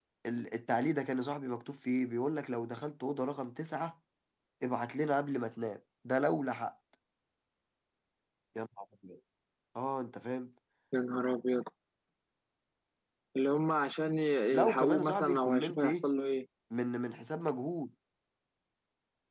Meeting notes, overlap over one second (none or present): present